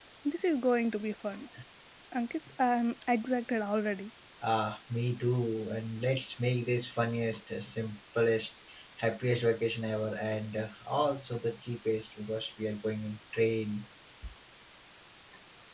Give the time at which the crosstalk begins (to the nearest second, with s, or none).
none